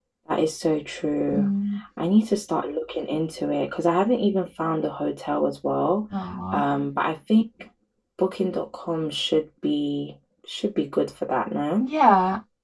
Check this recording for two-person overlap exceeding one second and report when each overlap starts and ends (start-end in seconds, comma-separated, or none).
none